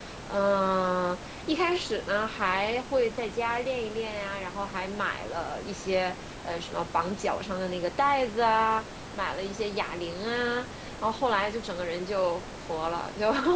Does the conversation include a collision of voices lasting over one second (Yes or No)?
No